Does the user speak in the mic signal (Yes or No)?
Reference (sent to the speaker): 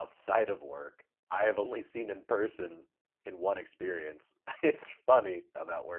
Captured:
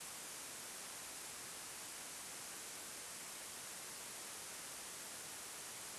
No